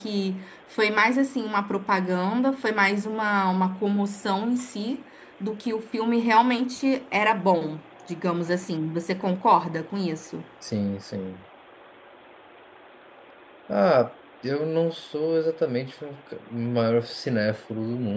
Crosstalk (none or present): none